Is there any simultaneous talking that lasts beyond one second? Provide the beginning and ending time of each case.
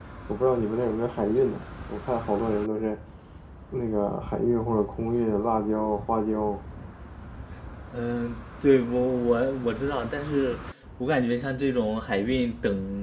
none

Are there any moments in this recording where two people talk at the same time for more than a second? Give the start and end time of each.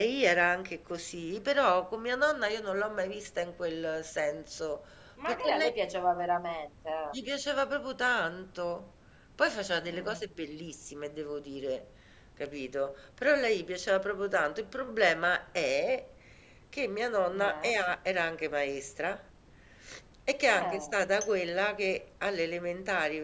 none

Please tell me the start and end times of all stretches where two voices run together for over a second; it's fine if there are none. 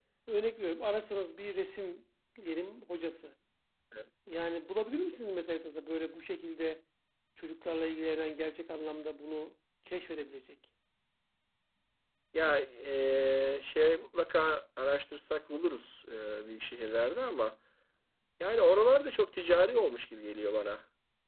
none

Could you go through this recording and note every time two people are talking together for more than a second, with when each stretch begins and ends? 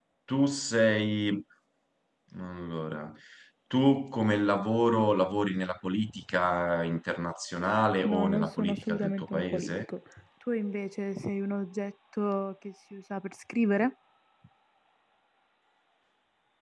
8.0-9.7

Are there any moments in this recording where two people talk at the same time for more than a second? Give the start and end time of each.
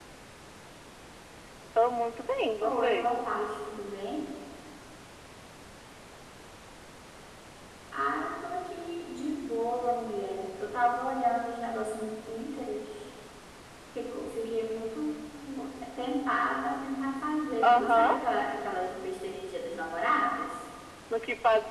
none

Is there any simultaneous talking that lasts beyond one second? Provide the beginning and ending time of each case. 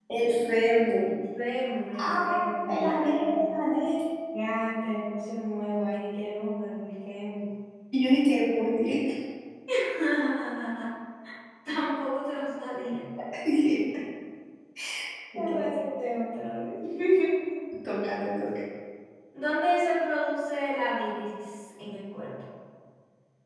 2.0-3.4

